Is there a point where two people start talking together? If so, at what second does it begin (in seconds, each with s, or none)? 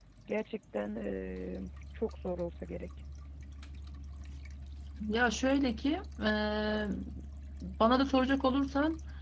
none